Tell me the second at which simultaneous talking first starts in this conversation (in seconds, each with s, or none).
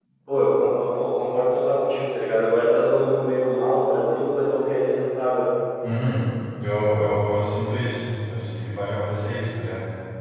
none